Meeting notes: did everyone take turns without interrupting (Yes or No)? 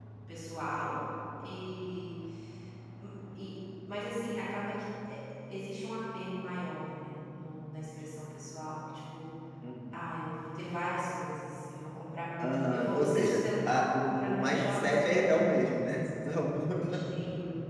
No